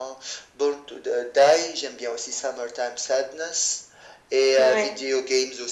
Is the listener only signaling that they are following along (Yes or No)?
Yes